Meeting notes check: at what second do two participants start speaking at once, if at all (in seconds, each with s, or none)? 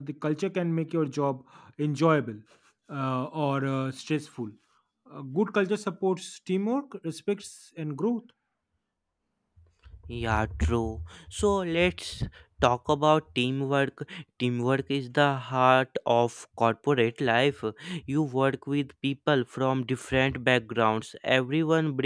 none